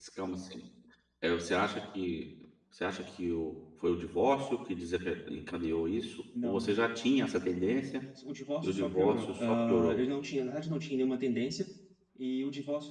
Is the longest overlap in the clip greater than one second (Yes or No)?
Yes